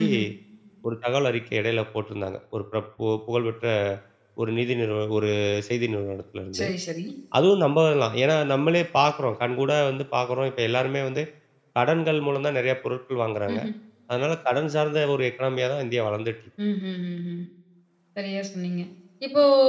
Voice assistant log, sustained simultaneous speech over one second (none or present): none